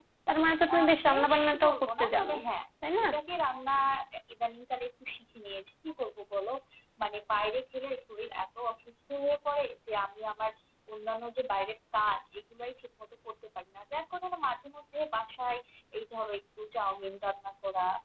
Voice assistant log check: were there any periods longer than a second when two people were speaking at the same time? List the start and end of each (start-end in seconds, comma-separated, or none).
0.8-2.3